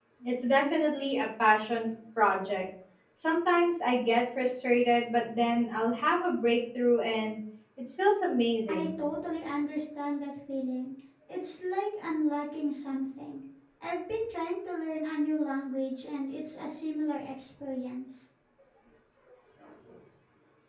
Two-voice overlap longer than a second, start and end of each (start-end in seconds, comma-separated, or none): none